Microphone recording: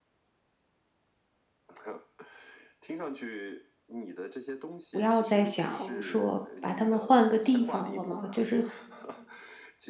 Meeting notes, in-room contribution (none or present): present